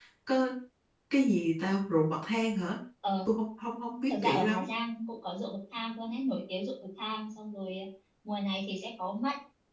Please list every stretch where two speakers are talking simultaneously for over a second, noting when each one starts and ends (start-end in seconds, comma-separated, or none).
none